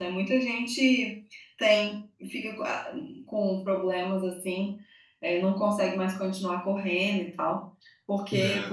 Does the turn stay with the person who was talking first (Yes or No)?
Yes